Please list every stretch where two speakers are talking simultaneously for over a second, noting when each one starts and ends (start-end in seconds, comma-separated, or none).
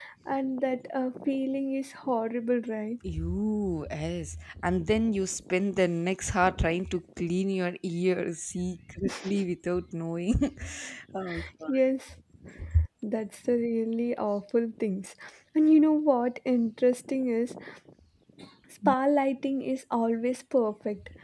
none